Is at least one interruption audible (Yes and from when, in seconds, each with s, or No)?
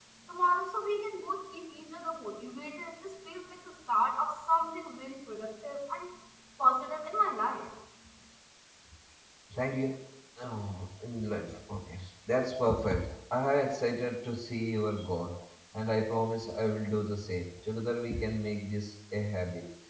No